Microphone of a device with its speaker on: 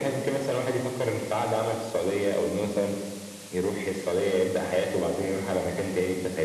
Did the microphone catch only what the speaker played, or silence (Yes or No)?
Yes